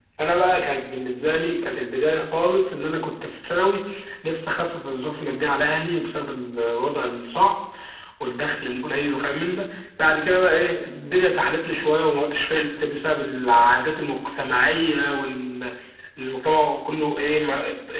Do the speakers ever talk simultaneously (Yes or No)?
No